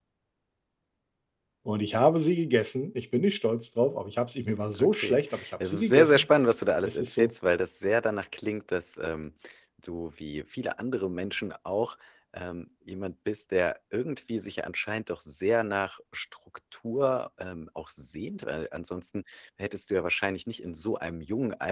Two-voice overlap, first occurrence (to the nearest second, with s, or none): 5 s